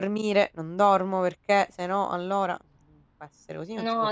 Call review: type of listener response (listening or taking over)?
taking over